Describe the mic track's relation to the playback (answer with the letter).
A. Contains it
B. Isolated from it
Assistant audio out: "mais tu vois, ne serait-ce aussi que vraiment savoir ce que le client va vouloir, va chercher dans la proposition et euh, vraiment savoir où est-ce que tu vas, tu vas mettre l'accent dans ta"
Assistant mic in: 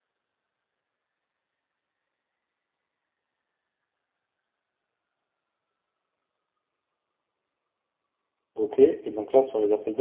B